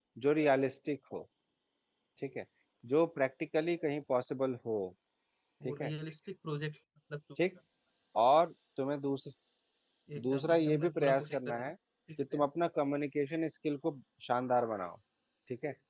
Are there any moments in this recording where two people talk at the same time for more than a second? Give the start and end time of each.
10.2-11.7

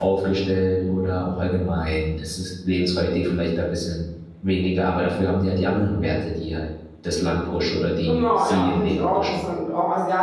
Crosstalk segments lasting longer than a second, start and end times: 8.1-9.4

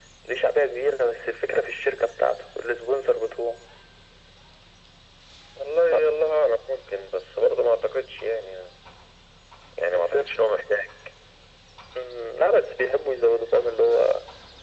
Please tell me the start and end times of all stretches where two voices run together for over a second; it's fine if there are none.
none

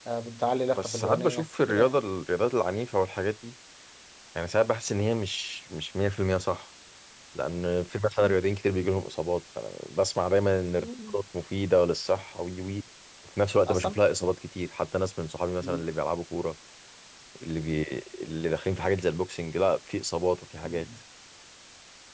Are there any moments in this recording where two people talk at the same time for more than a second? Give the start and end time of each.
0.8-2.0

